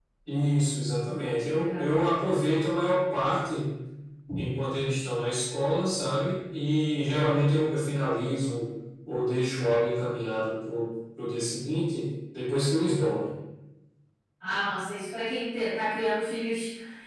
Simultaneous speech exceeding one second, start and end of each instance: none

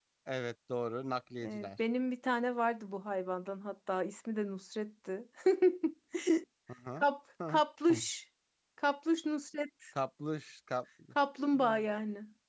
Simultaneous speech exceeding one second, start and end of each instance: none

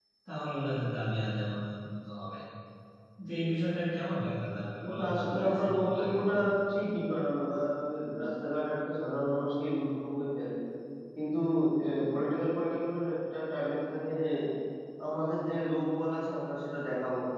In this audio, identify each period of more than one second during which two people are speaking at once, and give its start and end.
4.9-6.1

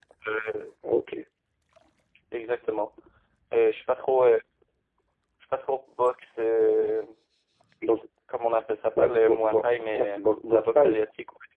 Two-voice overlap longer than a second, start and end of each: 9.0-11.0

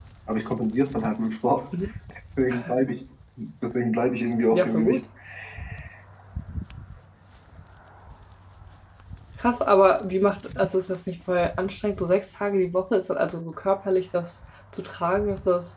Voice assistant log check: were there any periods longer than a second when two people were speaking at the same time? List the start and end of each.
none

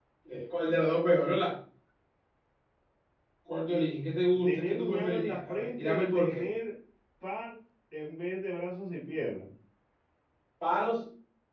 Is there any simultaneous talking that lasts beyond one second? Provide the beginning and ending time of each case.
4.4-6.5

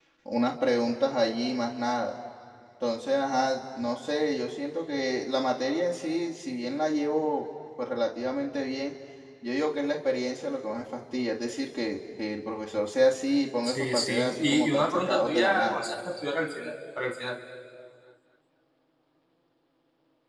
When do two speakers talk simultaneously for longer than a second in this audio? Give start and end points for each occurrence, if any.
13.6-15.8

